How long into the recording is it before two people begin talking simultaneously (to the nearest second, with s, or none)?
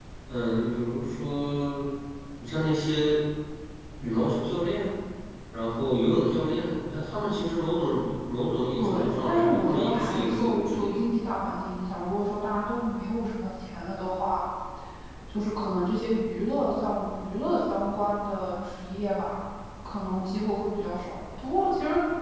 9 s